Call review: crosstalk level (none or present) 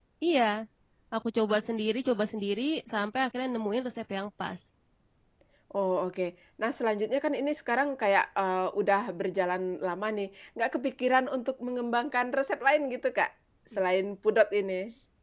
none